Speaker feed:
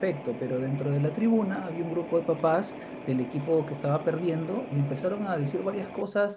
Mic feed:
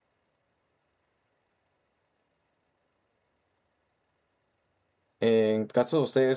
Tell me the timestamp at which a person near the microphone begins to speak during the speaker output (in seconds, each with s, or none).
5.2 s